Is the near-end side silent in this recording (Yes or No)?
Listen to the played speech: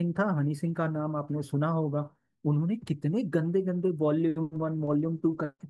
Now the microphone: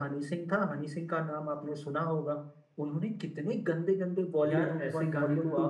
No